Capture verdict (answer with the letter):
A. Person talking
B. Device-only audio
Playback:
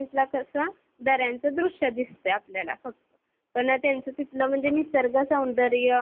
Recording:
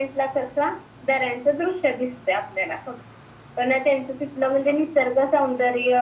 B